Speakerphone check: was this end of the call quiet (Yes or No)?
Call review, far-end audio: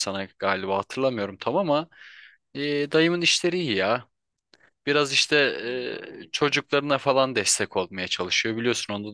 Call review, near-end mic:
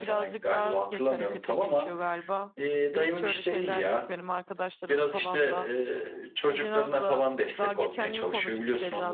No